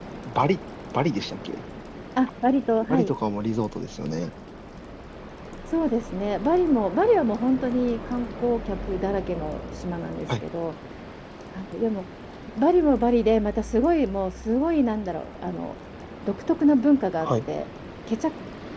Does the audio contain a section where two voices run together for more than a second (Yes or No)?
No